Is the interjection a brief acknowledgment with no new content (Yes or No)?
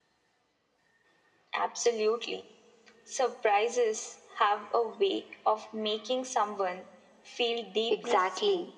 No